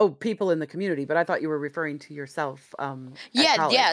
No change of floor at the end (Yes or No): No